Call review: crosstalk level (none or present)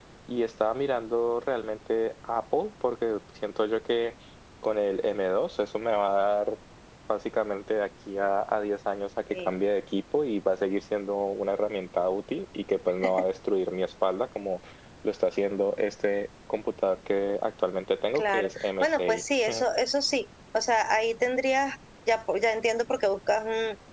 present